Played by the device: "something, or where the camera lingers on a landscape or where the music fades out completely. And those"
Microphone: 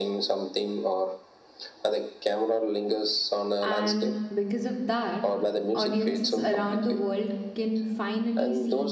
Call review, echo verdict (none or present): present